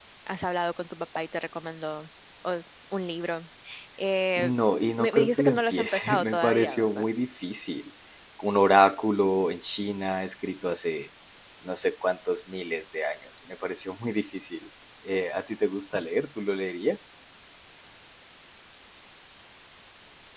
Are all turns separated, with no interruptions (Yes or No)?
No